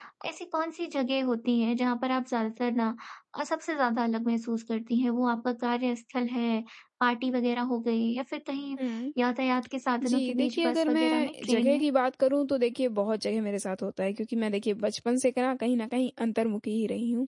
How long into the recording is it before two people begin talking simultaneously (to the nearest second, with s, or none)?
10 s